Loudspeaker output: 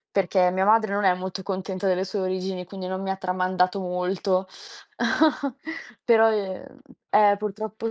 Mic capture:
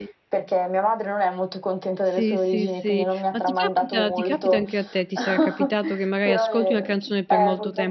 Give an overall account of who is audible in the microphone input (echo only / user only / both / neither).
both